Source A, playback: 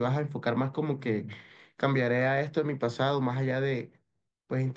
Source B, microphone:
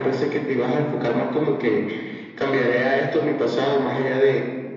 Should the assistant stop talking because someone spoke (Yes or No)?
No